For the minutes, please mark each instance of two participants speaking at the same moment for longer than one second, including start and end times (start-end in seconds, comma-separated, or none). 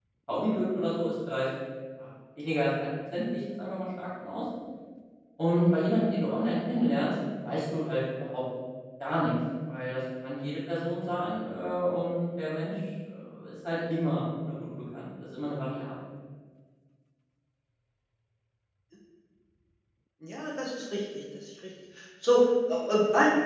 none